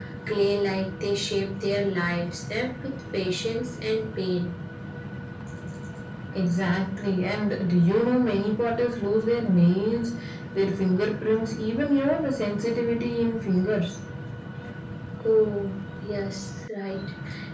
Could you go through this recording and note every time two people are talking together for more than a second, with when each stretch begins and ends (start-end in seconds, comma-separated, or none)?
none